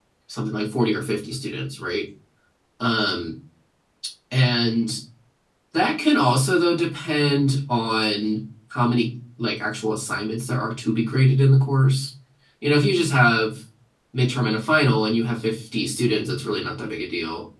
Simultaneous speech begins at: none

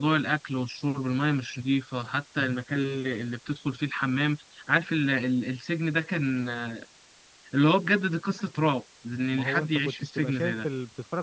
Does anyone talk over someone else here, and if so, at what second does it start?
9 s

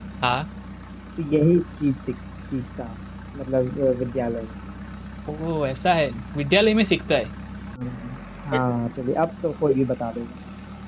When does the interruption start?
none

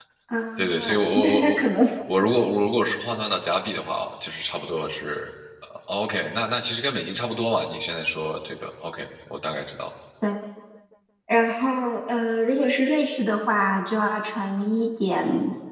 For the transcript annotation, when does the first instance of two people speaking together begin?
1 s

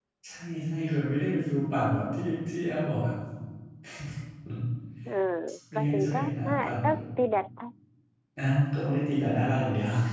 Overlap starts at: 6 s

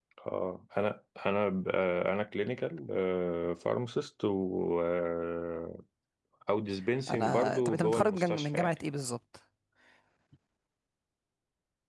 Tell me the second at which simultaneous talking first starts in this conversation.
7 s

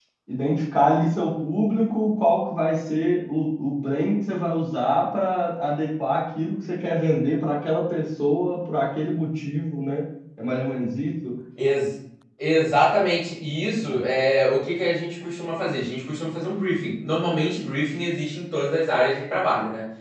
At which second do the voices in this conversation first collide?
none

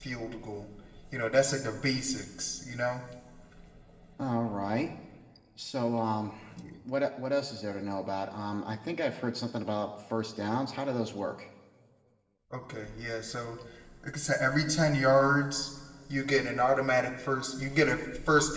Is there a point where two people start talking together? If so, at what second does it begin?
none

